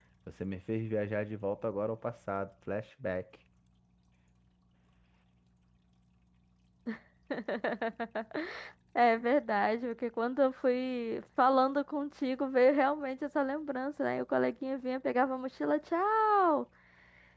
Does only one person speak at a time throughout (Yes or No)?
Yes